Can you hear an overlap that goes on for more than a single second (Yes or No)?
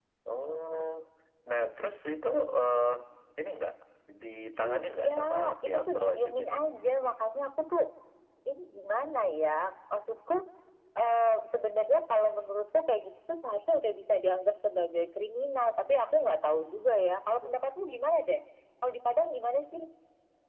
Yes